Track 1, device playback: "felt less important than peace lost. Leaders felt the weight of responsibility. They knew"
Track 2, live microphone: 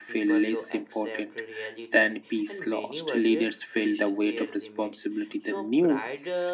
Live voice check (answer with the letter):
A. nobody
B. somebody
B